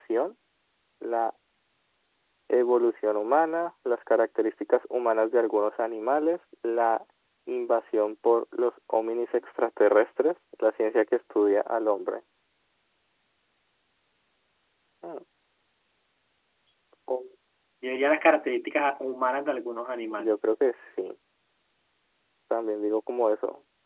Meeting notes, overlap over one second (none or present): none